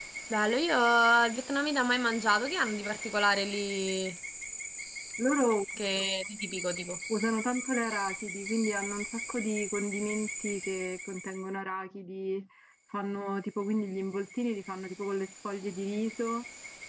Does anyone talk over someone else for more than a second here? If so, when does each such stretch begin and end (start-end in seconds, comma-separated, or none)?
none